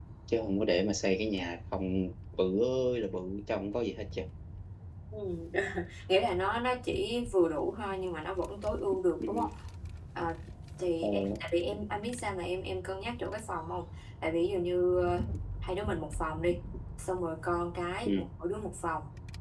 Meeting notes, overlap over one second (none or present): none